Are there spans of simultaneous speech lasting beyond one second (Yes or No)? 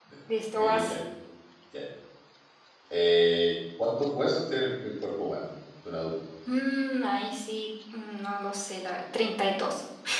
No